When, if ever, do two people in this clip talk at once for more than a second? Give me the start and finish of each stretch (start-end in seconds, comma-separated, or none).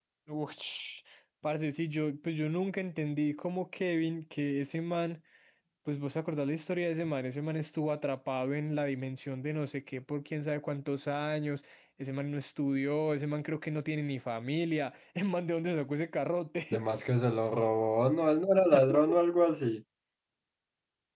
none